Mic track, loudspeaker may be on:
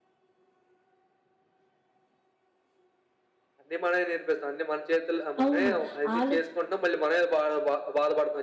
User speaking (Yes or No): Yes